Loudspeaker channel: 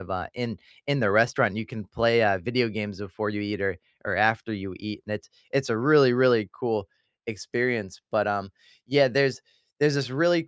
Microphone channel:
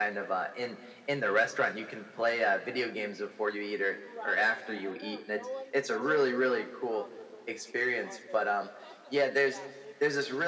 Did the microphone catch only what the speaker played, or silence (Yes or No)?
No